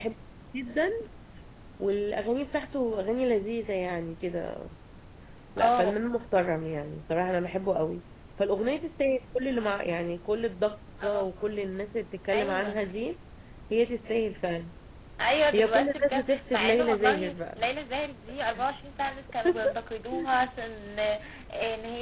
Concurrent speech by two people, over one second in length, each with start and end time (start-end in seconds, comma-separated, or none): 15.5-17.6